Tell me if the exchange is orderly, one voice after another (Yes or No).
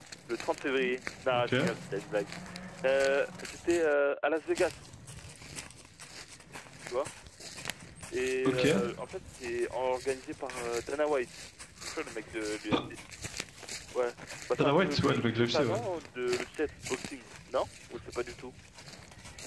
No